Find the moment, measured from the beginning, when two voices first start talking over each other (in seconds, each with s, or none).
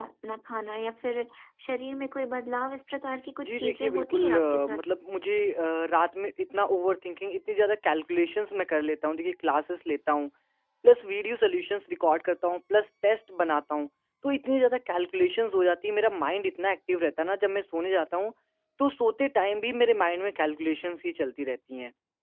3.4 s